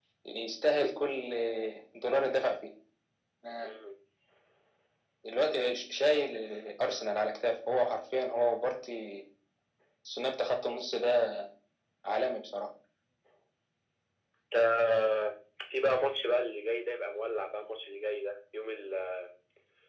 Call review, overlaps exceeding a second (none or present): none